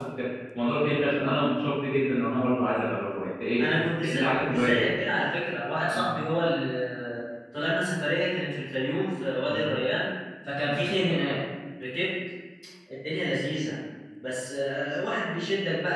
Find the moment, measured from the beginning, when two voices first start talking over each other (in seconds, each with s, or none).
3.6 s